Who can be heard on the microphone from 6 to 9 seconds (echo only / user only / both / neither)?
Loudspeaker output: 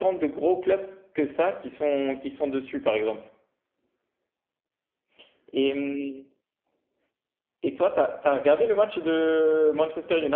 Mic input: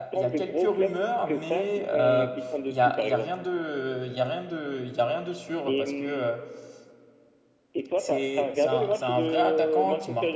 both